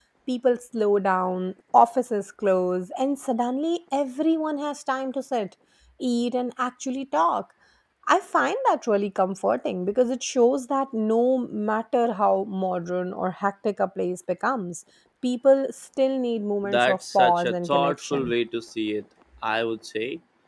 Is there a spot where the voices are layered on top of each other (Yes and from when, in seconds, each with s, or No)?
Yes, from 16.6 s